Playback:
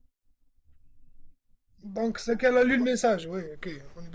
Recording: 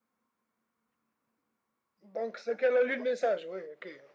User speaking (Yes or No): No